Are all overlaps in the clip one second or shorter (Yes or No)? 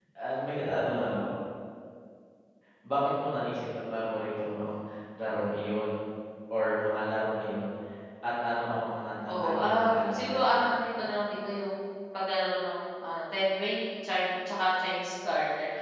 No